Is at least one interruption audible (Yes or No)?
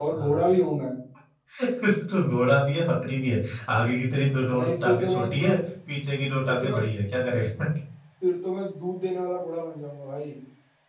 Yes